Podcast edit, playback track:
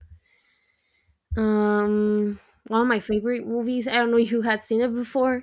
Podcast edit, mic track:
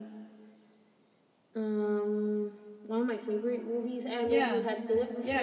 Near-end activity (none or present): present